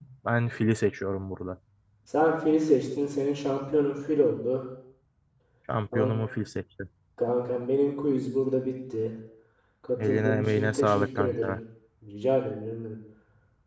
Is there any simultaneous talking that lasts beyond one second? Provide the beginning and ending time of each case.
10.1-11.6

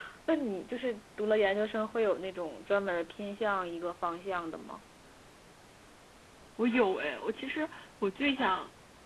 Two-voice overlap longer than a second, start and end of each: none

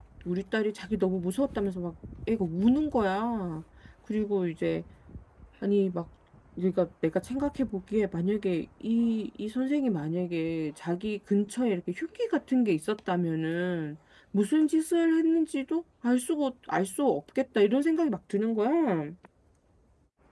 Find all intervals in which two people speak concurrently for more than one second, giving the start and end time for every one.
none

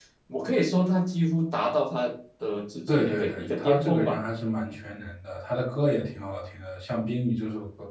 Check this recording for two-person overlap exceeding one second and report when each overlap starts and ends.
2.9-4.2

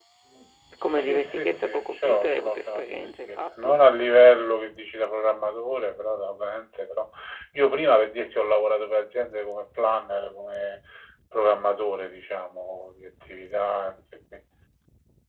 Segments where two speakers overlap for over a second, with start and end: 0.8-3.8

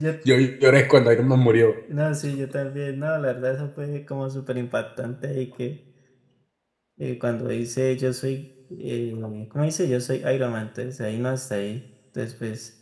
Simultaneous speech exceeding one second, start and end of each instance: none

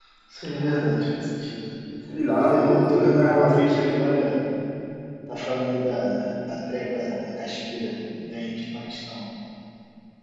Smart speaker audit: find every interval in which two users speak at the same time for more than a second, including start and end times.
2.4-4.1

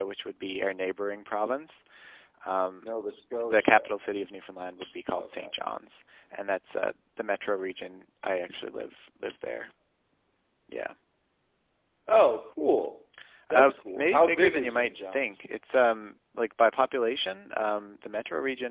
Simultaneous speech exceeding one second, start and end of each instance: 13.6-15.3

